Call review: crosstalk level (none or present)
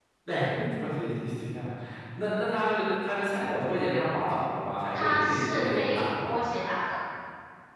present